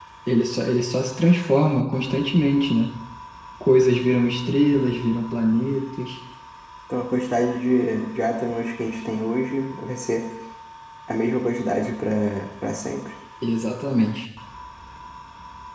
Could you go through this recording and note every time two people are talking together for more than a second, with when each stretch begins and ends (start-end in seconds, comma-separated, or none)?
none